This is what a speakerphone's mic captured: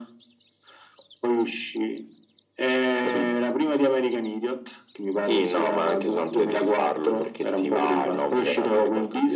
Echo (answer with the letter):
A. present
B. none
A